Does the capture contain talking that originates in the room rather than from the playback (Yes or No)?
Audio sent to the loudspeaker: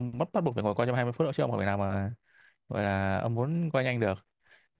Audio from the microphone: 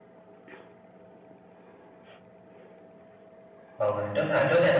Yes